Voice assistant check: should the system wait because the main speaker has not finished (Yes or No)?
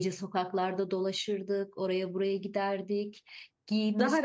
Yes